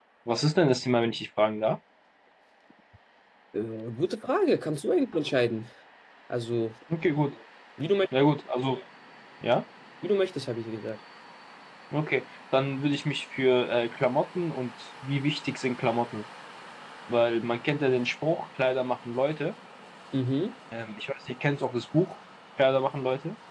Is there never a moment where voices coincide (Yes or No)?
Yes